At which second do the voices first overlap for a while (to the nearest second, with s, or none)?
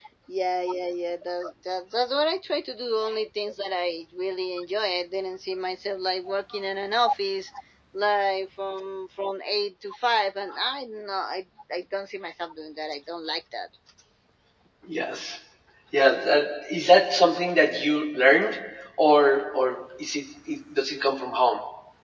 none